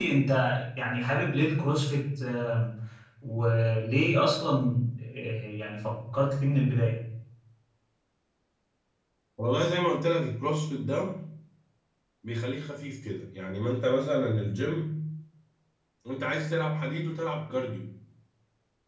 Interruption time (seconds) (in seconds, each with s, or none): none